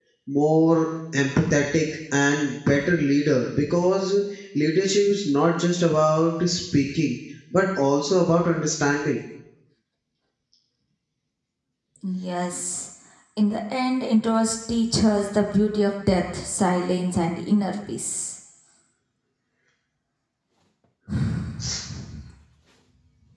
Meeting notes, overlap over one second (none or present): none